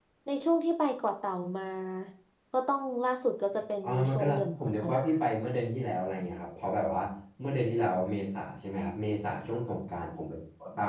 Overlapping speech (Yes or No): Yes